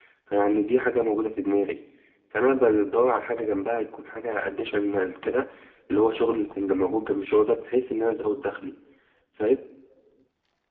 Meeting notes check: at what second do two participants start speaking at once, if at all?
none

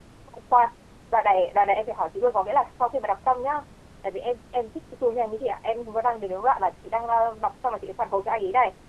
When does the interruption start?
none

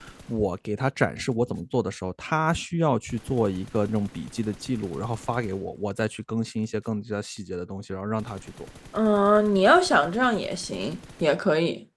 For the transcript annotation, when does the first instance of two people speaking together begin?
none

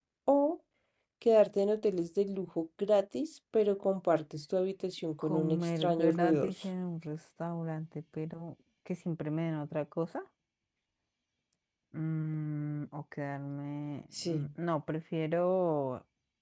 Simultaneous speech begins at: 5.2 s

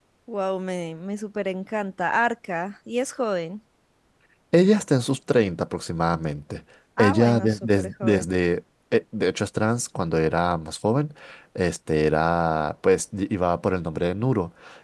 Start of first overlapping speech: 7.0 s

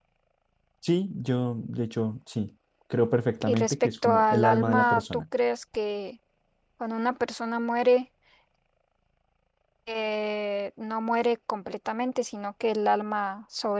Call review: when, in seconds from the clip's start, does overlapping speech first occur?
3.5 s

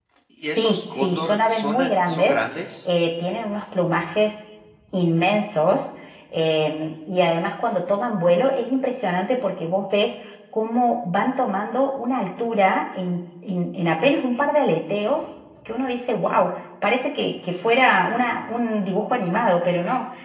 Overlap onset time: 0.6 s

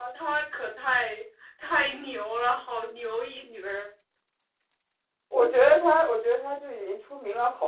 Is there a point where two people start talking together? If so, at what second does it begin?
none

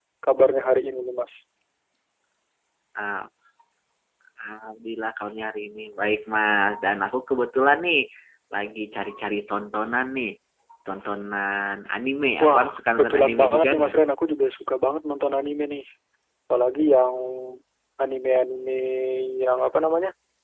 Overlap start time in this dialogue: 12.4 s

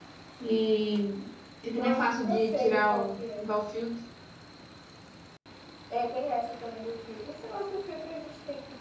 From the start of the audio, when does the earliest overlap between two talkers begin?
1.8 s

